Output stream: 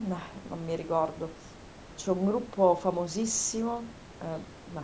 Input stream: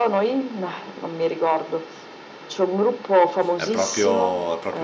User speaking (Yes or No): Yes